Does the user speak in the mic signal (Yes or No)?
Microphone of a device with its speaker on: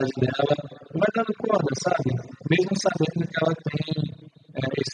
No